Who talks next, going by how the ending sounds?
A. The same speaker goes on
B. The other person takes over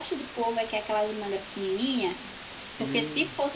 A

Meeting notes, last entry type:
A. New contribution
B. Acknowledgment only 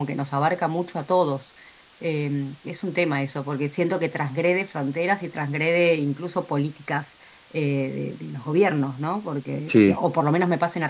B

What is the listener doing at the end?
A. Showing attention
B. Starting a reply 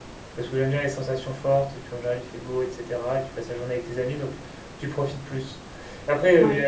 A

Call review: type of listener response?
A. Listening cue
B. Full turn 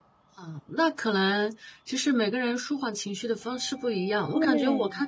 A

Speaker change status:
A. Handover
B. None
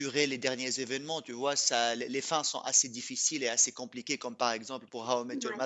B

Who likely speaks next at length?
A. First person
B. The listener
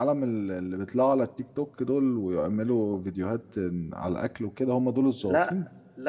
B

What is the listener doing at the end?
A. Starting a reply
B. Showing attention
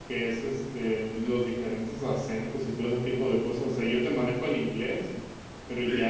B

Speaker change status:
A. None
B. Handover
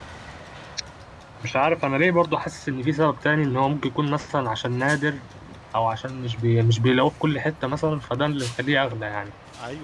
B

